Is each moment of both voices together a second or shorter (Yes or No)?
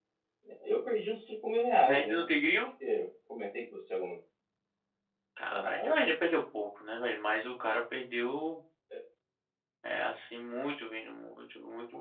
Yes